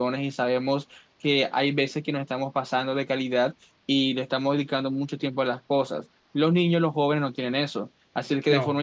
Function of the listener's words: listening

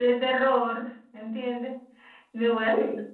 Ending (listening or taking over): listening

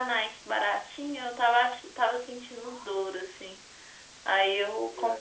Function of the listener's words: listening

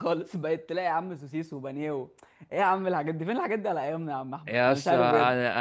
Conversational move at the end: taking over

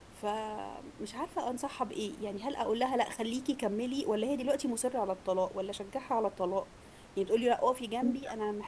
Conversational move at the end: listening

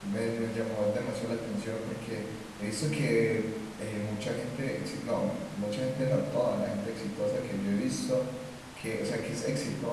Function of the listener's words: listening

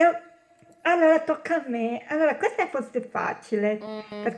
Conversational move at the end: listening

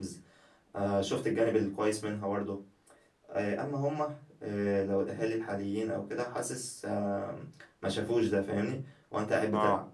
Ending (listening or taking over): listening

